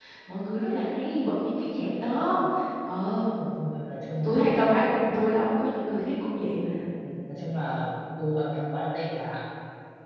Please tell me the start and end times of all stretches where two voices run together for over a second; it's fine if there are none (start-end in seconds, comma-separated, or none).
none